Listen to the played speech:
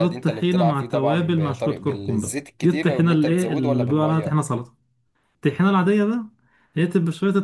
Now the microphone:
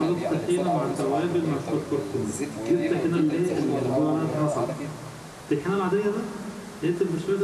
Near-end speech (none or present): present